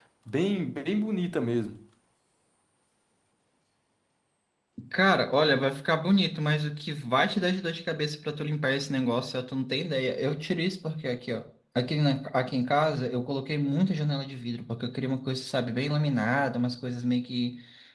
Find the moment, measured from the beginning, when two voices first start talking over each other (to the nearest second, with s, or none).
none